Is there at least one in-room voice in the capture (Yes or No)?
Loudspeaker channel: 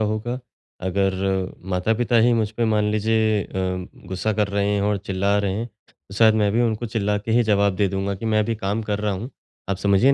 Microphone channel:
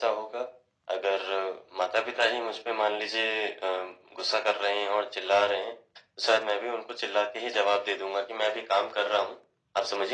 No